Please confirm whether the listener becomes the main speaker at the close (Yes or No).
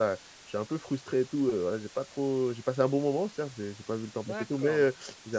Yes